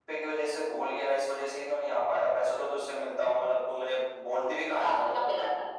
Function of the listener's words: taking over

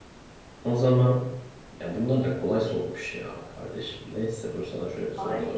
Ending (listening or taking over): taking over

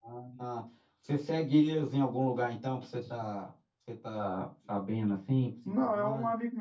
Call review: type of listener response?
taking over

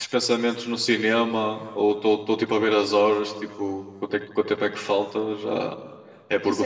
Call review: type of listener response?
taking over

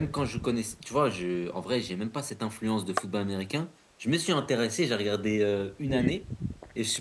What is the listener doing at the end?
listening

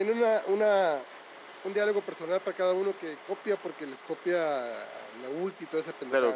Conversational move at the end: taking over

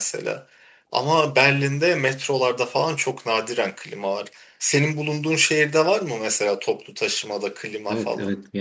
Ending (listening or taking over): taking over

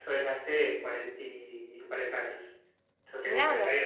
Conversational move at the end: taking over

